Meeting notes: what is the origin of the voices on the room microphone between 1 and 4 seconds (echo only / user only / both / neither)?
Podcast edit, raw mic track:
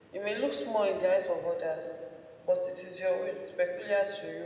echo only